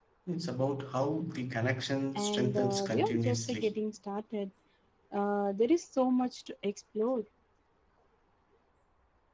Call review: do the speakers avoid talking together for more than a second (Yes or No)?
No